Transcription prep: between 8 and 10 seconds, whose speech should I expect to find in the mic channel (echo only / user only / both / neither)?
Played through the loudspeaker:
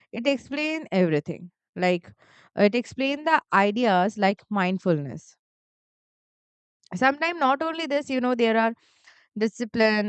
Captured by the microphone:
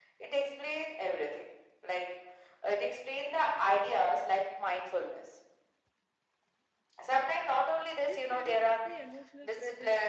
both